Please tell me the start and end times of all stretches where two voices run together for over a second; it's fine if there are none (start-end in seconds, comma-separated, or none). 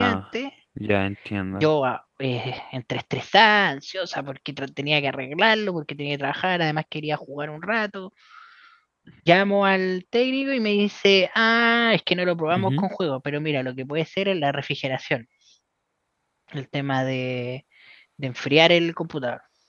none